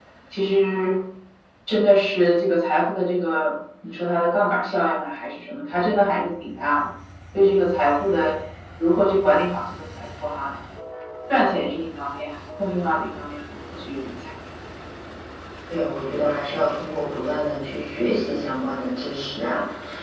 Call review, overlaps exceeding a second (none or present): none